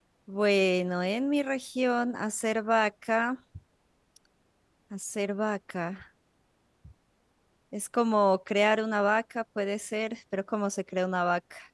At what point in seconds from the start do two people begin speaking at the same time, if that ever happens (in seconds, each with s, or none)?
none